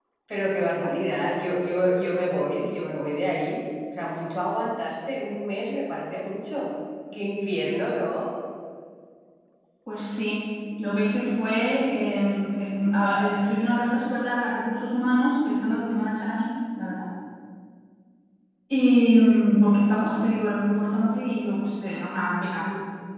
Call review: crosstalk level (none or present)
none